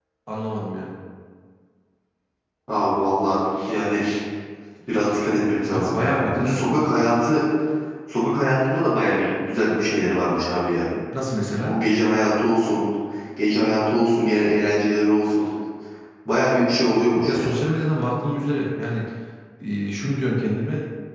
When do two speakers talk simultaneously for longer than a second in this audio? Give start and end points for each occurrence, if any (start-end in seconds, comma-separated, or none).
5.7-7.1